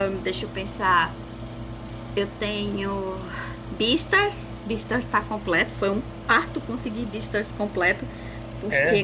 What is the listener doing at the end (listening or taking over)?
listening